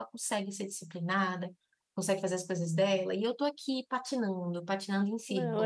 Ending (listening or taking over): taking over